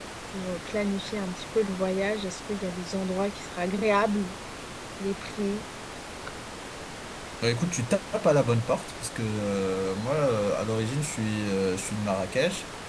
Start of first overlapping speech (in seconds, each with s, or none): none